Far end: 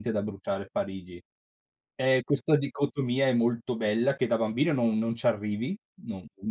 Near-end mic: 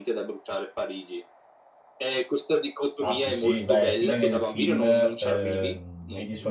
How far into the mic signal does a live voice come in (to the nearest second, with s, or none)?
3 s